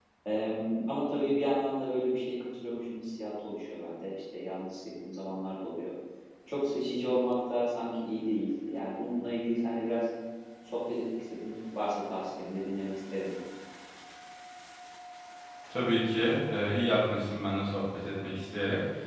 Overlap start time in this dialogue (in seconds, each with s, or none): none